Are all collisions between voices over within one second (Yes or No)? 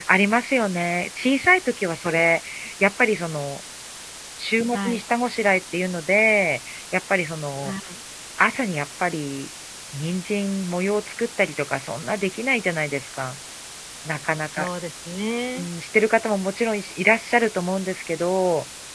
Yes